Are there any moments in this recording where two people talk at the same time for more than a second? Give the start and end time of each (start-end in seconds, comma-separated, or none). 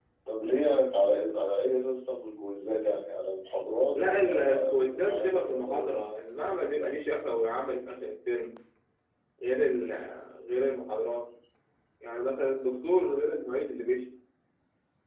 3.9-5.9